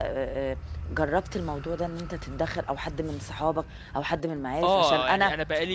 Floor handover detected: Yes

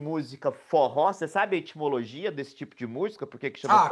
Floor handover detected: Yes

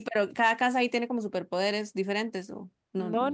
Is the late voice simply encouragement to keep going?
No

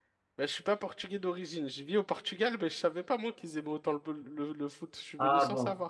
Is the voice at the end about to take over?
Yes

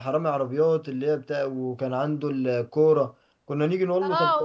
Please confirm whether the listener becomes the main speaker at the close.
Yes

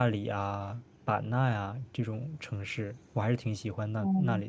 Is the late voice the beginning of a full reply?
Yes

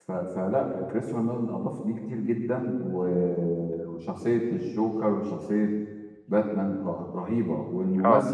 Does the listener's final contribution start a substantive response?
No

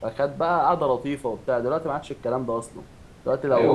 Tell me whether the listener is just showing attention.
Yes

